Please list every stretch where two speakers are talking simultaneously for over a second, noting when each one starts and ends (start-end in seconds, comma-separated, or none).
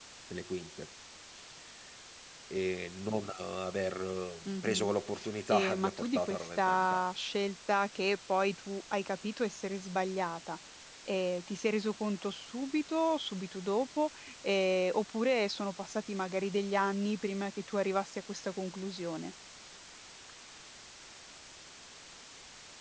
5.5-7.0